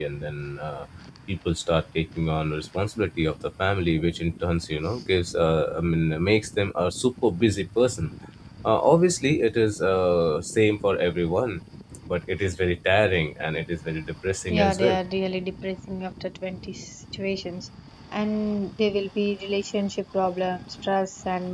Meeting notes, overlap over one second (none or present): none